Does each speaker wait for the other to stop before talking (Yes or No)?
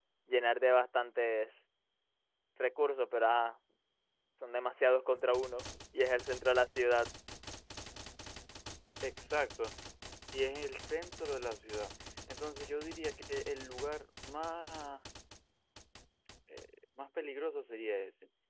Yes